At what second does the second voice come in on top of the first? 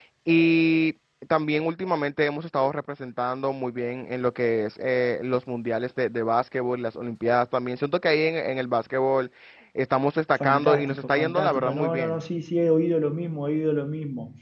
10.4 s

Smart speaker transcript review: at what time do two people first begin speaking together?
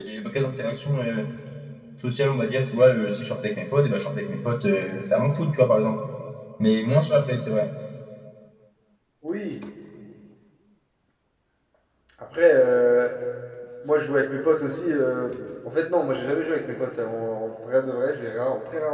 none

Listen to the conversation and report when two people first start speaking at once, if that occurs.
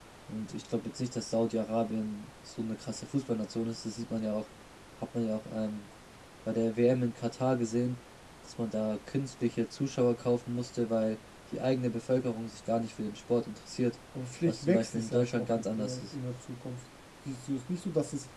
14.5 s

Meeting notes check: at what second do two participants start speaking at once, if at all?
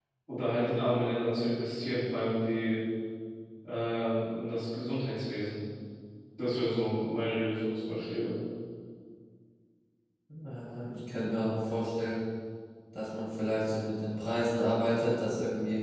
none

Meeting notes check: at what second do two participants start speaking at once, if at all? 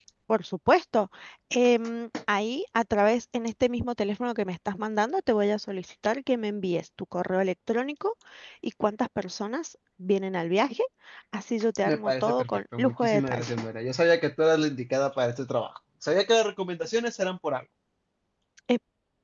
11.8 s

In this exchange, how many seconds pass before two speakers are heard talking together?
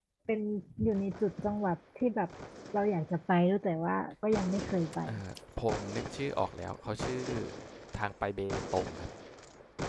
none

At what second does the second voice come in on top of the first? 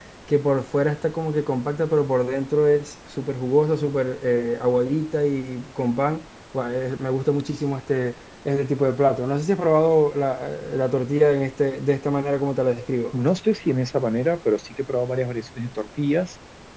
none

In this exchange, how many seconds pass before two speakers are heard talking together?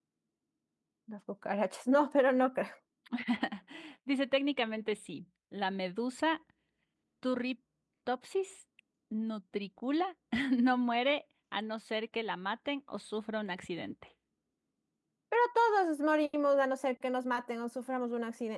none

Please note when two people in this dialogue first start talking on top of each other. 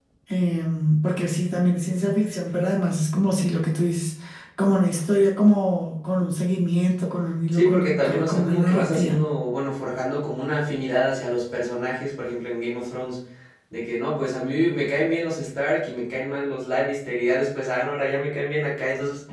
7.5 s

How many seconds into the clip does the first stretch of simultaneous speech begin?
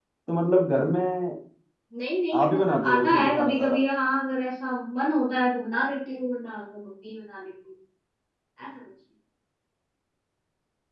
2.4 s

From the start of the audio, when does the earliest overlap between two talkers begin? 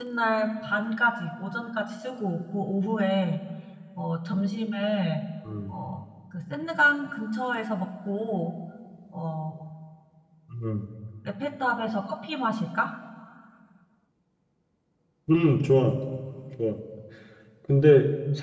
none

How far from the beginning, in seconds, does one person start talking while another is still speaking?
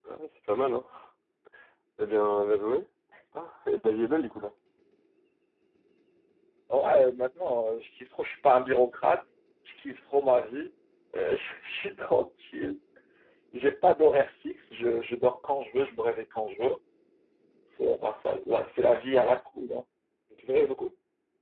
none

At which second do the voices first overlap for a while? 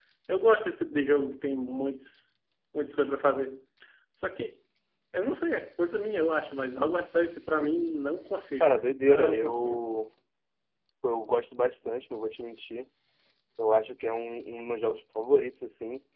8.6 s

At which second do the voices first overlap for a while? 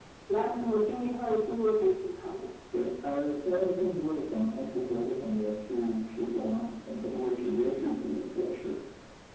none

